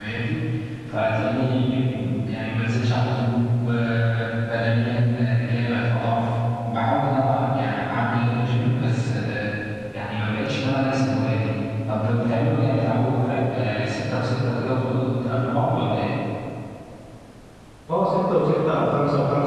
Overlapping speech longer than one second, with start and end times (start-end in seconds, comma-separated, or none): none